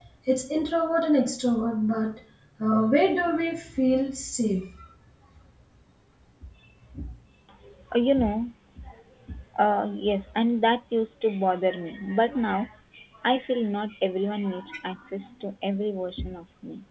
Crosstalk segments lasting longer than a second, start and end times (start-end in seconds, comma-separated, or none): none